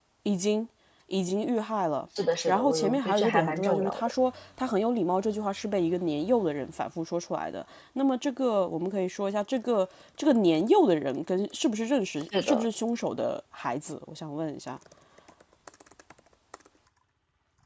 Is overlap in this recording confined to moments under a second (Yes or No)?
No